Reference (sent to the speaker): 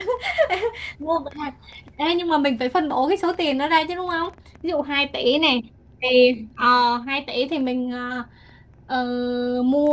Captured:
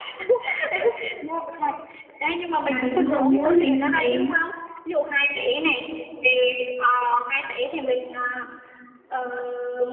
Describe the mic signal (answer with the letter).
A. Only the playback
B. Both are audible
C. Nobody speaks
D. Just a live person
B